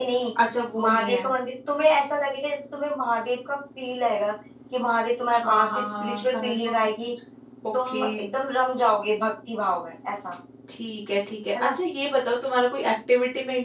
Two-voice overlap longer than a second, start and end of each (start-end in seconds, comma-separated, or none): 5.4-6.9